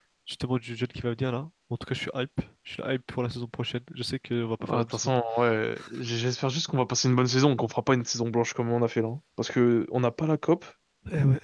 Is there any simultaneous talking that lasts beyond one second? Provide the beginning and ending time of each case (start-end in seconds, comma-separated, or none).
none